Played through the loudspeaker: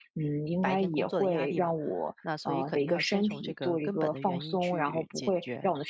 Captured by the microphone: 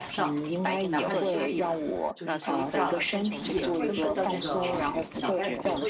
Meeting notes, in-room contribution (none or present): present